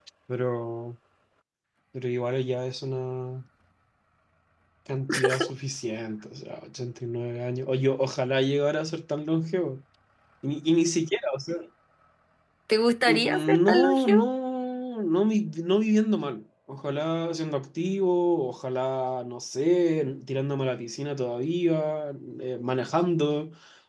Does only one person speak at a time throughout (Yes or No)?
No